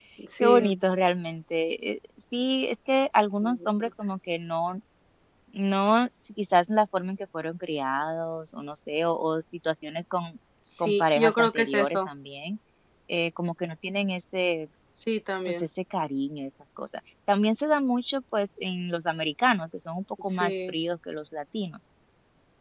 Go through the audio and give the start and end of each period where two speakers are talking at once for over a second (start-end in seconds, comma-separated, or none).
10.8-12.1